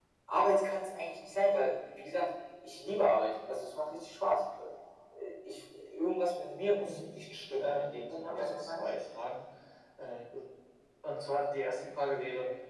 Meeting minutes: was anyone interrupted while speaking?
Yes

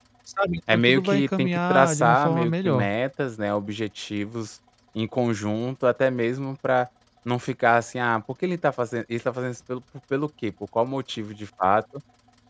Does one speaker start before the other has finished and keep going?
Yes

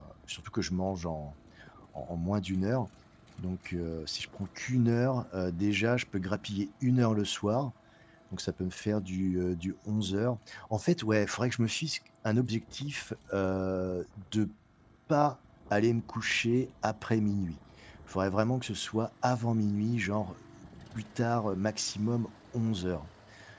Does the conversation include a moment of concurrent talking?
No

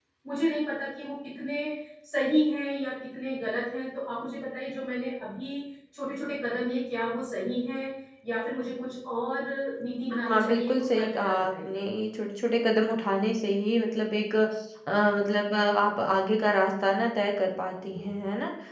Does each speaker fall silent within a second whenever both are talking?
No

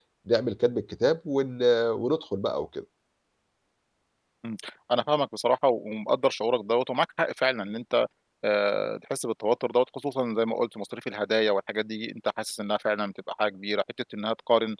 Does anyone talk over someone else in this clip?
No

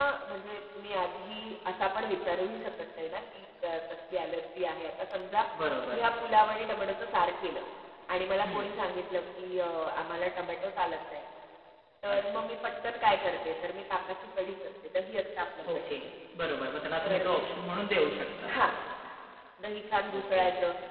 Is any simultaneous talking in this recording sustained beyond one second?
No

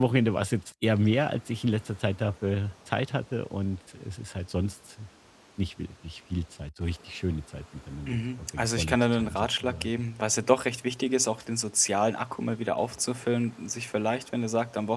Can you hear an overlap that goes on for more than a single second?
Yes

